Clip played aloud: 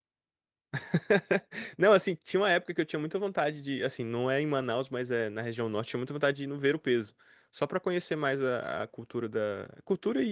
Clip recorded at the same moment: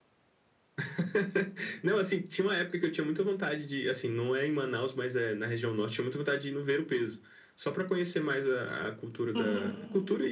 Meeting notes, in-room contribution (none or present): present